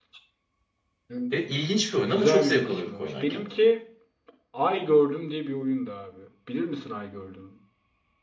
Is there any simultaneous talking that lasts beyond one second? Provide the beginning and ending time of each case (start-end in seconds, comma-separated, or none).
2.1-3.5